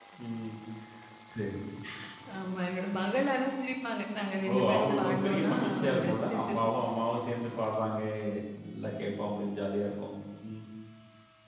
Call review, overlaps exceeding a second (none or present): present